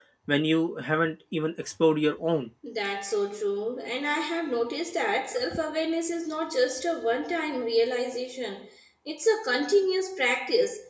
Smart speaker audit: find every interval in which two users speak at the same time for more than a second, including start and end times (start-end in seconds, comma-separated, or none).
none